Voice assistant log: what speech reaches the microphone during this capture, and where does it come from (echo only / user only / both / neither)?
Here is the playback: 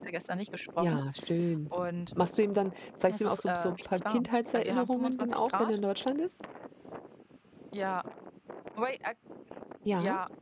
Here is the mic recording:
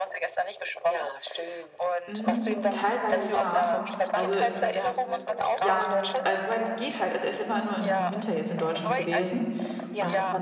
both